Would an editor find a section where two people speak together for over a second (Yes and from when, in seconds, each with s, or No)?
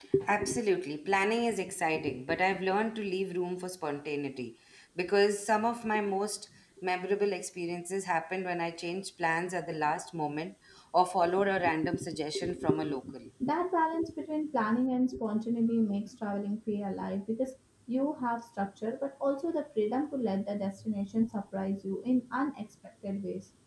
No